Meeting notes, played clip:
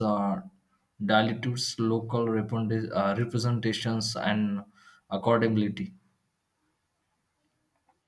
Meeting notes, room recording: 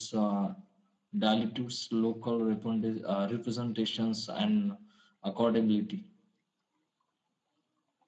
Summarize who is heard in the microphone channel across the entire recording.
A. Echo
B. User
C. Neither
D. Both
A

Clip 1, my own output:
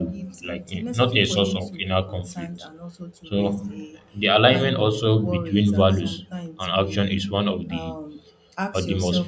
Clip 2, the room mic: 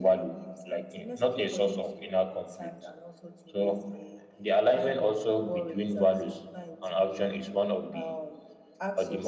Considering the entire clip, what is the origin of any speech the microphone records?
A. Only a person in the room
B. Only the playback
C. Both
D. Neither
B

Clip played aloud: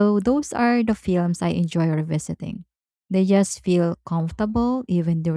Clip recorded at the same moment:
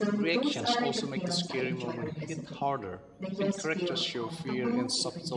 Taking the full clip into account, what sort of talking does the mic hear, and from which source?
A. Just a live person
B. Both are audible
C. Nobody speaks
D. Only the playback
B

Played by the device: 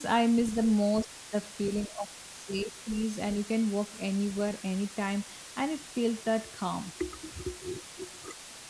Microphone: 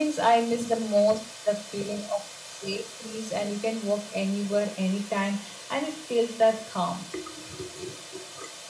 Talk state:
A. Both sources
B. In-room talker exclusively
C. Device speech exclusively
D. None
C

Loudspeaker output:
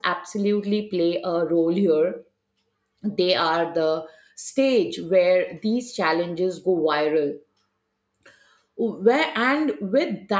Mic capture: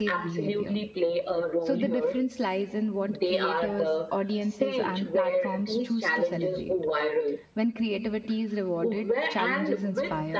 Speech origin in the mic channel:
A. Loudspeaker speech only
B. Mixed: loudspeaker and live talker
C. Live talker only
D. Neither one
B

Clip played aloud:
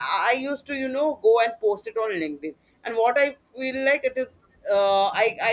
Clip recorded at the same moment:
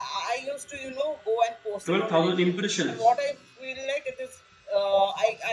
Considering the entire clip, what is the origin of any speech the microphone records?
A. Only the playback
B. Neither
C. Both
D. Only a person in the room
C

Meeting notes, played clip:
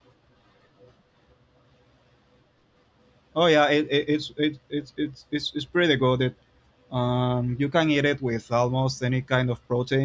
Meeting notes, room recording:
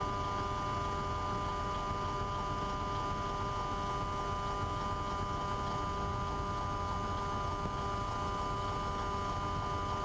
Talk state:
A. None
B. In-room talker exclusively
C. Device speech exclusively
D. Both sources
A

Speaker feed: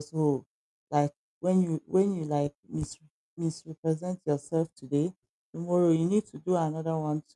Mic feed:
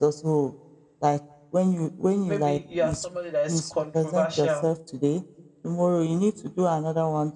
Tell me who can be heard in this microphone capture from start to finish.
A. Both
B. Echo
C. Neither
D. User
A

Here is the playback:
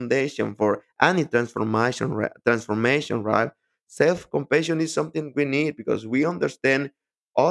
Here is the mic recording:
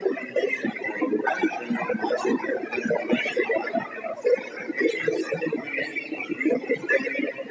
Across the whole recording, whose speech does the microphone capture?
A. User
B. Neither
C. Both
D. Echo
D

